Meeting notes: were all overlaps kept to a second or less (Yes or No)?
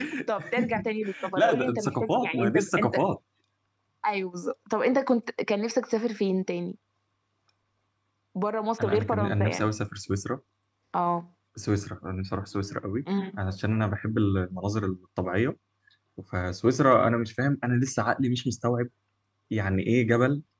No